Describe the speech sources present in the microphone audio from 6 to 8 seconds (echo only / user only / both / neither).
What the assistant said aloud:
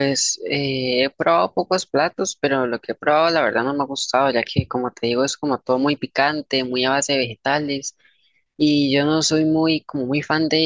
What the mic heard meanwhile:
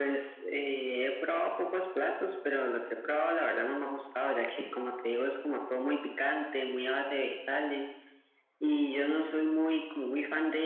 echo only